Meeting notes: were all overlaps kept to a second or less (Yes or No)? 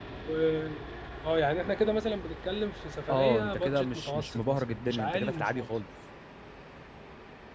No